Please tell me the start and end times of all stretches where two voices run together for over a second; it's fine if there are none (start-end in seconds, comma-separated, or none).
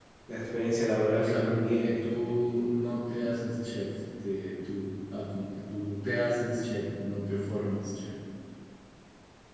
1.1-2.4